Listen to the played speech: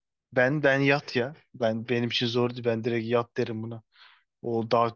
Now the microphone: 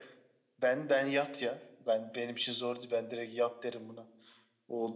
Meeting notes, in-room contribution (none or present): none